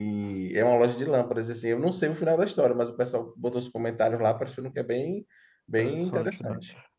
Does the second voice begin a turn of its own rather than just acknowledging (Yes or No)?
Yes